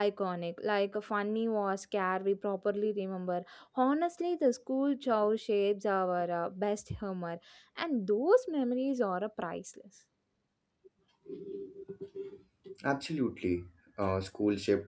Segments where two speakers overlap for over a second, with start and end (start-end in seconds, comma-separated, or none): none